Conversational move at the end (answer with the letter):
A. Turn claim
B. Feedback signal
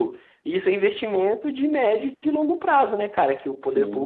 B